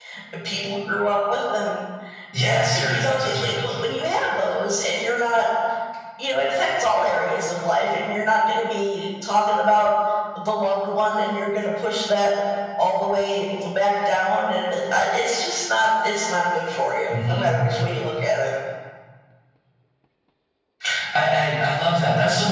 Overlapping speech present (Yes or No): Yes